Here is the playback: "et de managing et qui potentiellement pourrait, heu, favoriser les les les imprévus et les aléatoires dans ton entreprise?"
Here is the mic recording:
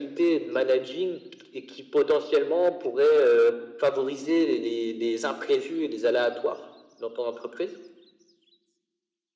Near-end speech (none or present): none